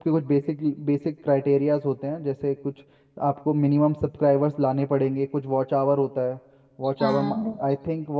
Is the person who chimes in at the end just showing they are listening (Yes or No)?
Yes